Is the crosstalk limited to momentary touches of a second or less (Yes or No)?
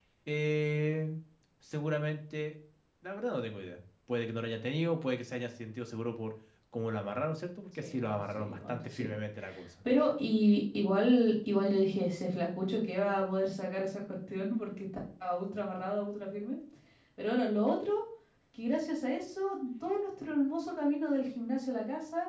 No